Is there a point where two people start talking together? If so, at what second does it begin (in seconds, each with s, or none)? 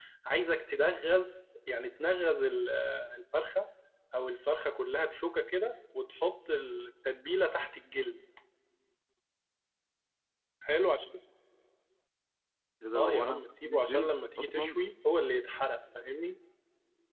12.9 s